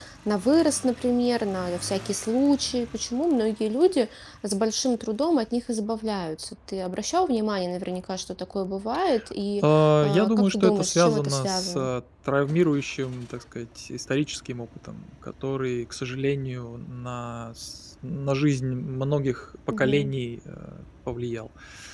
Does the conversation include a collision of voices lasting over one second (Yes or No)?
Yes